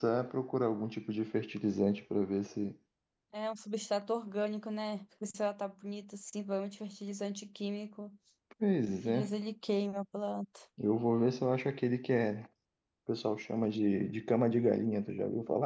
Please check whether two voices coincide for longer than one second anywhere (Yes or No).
No